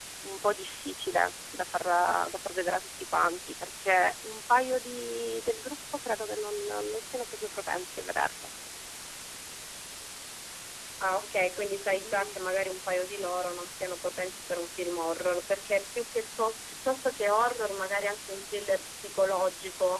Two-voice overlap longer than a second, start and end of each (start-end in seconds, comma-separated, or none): none